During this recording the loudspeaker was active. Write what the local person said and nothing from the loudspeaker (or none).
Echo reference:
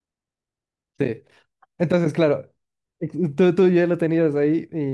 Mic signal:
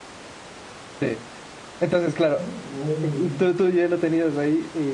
Ah, uy.